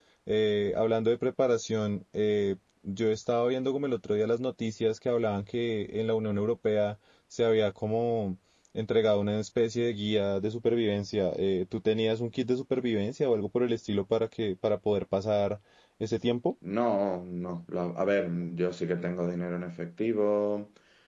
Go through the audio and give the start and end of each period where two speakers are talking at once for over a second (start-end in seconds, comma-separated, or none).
none